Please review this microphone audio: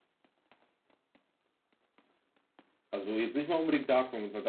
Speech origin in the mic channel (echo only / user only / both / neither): user only